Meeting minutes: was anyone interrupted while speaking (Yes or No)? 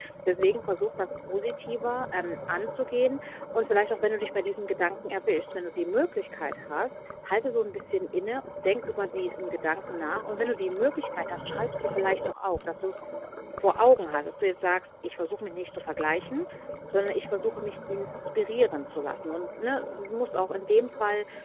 No